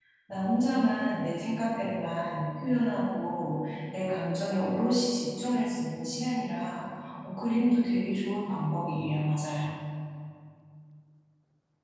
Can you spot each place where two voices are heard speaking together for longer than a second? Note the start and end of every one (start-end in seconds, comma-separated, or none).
none